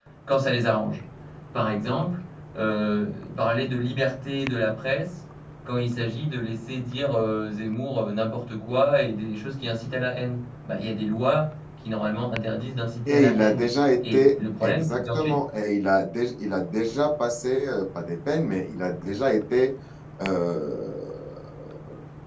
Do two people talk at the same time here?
Yes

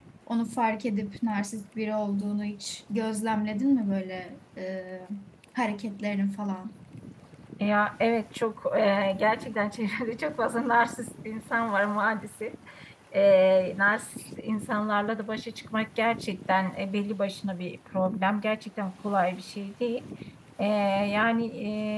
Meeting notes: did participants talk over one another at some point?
No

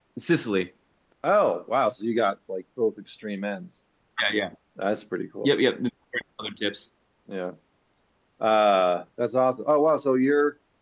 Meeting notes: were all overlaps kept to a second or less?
Yes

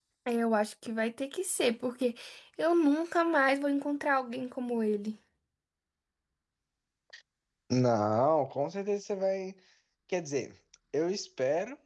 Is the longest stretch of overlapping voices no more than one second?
Yes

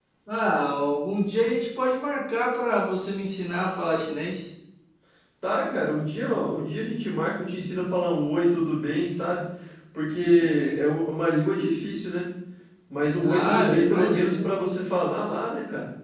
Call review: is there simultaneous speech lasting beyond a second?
Yes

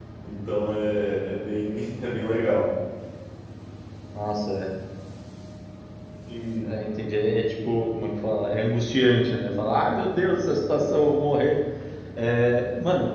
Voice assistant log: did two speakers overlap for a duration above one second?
No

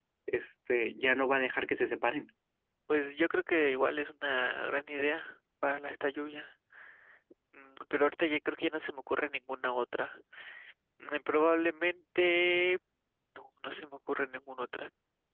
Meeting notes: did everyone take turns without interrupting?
Yes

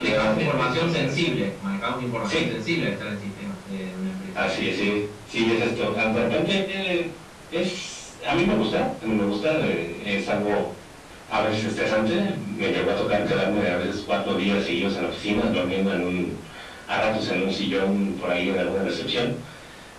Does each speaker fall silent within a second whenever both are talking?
No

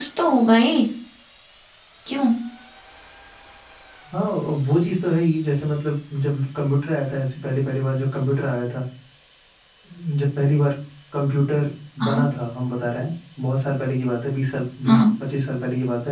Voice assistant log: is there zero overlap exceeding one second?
Yes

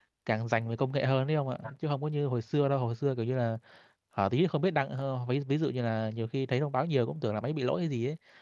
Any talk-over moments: No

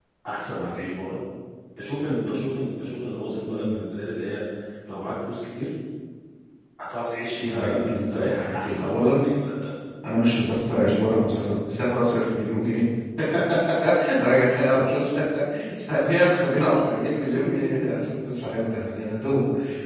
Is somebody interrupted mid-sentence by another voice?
Yes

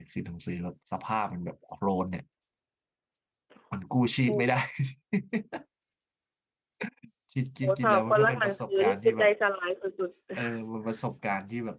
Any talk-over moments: Yes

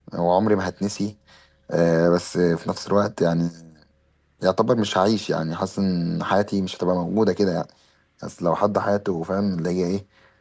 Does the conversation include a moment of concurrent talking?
No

